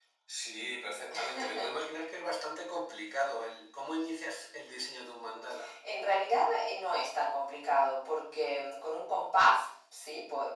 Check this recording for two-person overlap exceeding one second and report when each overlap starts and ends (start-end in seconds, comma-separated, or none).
none